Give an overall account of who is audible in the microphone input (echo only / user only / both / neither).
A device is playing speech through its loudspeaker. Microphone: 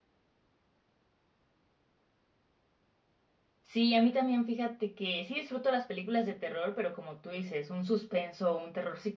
user only